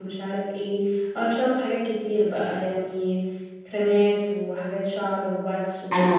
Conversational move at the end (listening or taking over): taking over